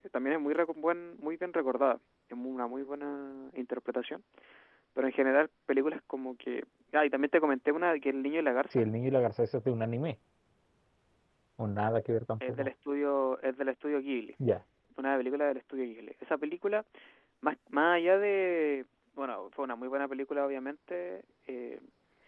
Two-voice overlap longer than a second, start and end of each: none

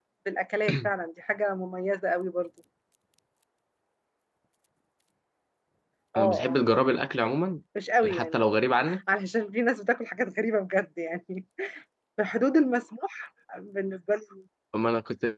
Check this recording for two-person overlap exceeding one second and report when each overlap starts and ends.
none

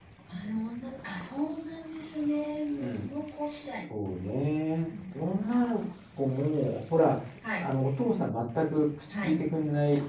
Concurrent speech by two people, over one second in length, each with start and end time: none

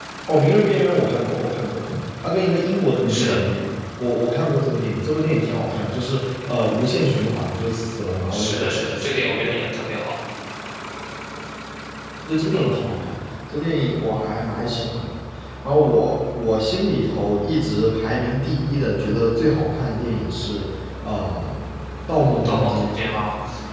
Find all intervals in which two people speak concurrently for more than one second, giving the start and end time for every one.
8.3-9.7

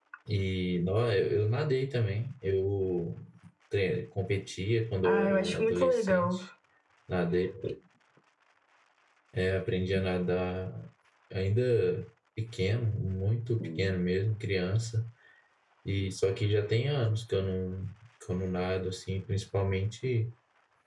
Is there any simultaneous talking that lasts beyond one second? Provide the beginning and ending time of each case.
5.0-6.4

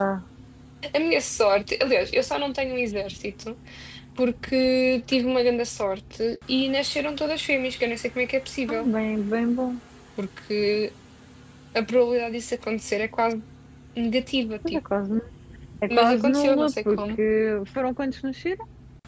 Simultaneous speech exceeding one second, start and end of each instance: 15.9-17.2

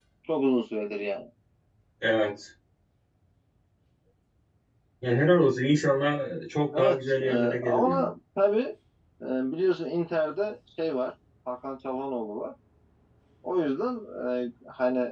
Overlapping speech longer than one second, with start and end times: 6.7-8.1

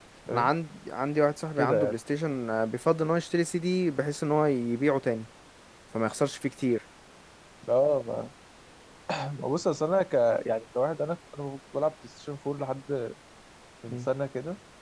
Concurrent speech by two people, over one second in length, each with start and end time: none

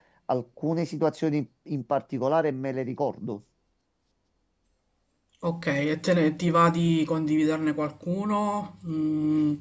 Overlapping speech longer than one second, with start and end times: none

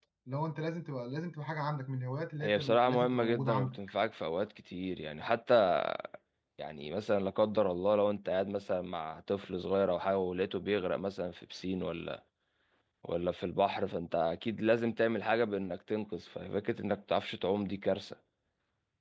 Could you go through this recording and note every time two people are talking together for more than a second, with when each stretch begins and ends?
2.4-3.8

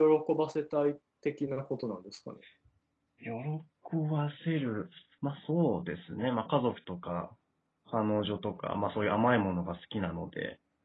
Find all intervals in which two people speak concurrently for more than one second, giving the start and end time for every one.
none

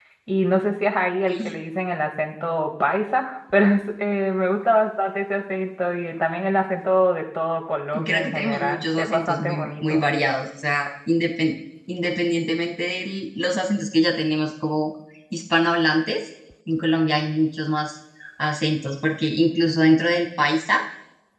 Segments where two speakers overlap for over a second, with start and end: 8.0-10.0

